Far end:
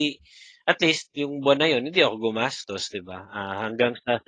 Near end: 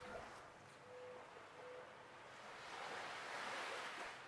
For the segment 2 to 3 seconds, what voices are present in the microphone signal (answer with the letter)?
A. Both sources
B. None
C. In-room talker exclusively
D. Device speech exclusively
B